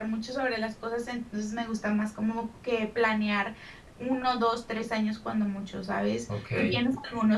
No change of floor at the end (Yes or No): Yes